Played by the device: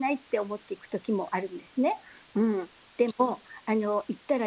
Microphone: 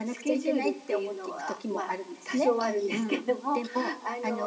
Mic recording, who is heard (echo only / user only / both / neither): both